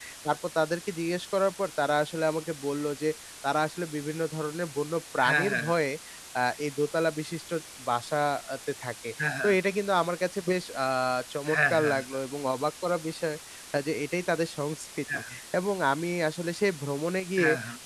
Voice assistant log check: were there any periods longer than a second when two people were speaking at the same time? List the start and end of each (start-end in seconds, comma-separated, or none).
none